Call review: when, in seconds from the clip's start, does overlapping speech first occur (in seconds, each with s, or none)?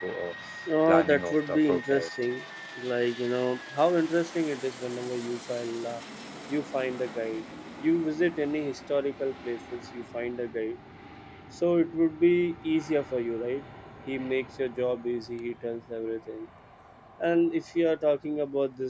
0.9 s